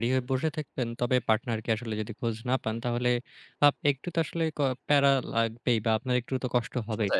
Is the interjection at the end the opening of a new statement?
No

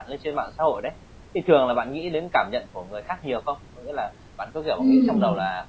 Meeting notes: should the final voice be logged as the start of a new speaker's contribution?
No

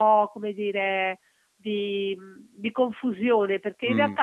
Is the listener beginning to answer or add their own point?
No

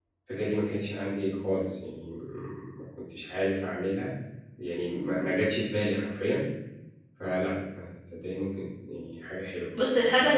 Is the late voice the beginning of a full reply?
Yes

